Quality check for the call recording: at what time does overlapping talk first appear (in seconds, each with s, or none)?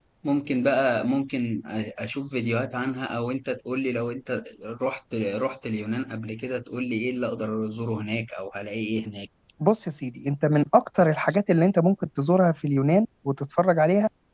none